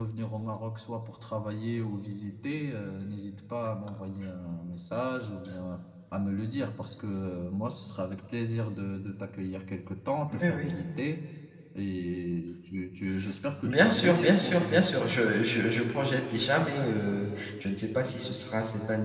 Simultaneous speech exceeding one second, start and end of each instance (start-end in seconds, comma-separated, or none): 13.6-14.9